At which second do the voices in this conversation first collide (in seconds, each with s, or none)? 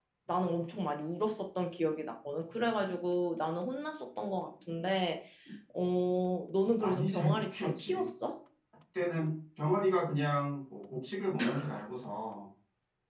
6.8 s